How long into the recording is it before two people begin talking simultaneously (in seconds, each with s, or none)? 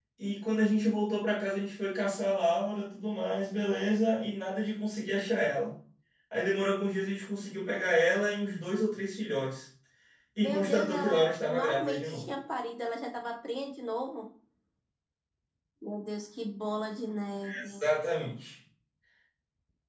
10.4 s